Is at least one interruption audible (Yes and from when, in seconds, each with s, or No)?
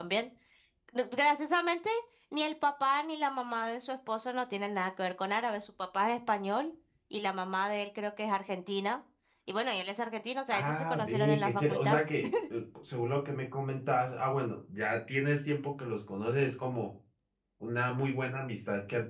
Yes, from 10.5 s